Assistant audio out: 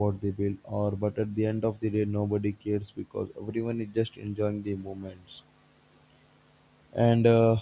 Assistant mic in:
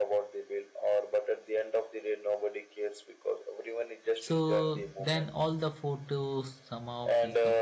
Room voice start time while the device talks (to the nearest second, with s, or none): 4 s